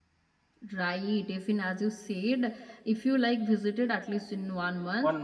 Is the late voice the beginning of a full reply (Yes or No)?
No